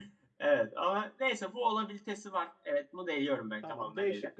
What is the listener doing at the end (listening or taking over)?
taking over